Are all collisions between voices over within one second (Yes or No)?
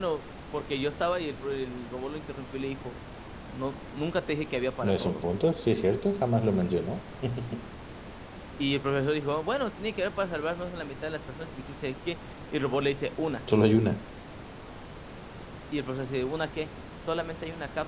Yes